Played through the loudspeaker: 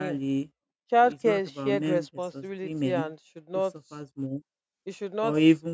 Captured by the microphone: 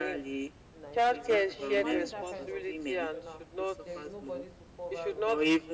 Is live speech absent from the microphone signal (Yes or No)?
No